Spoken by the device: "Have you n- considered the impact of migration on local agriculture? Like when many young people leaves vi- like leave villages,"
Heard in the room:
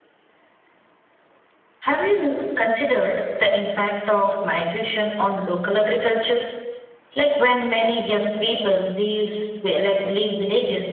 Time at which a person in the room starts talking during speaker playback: none

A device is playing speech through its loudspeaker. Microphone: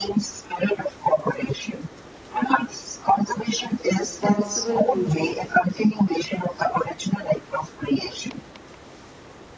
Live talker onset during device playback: 4 s

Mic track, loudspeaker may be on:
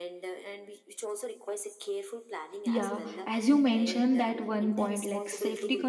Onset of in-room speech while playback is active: 3 s

